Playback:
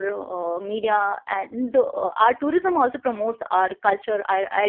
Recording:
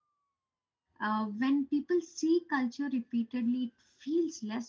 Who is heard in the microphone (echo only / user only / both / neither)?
user only